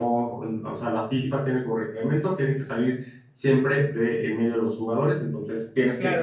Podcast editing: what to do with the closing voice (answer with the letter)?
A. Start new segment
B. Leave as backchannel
A